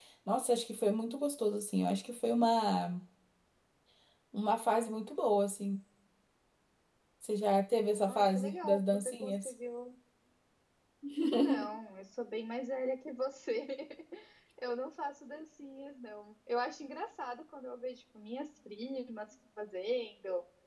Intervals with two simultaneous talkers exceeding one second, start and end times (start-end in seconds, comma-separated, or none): 8.1-9.5